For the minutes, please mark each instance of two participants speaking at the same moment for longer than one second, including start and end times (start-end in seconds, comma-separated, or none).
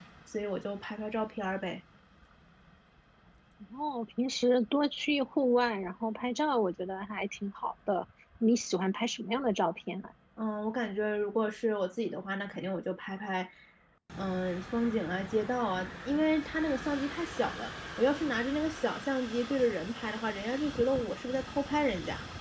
none